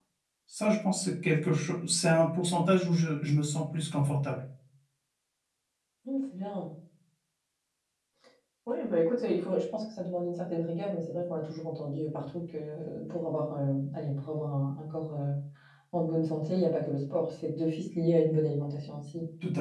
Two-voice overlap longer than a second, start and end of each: none

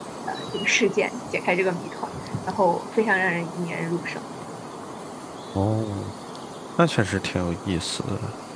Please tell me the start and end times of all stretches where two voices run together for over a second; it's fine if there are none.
none

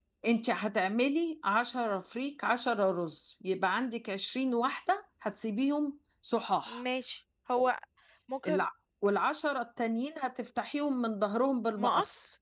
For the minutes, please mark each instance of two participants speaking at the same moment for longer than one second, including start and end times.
none

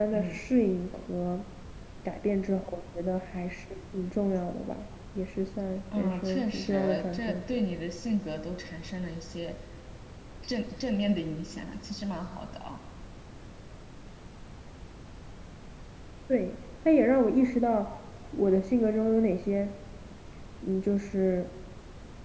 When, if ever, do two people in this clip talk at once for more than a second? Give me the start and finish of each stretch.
6.0-7.6

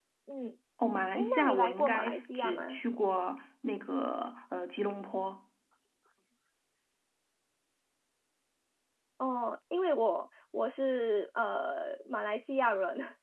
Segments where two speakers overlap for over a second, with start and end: 1.1-2.8

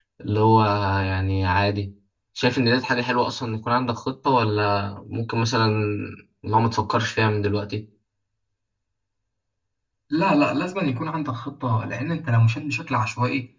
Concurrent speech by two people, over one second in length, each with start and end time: none

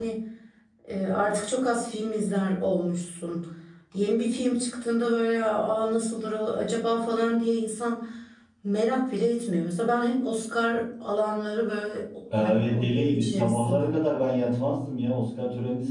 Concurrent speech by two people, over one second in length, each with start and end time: 12.4-13.9

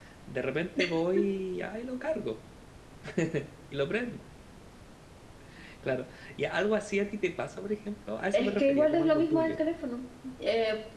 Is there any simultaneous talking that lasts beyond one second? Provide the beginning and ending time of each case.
8.3-9.6

